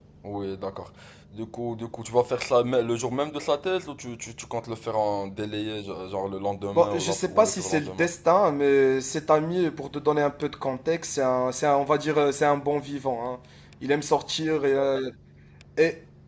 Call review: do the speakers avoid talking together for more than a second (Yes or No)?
No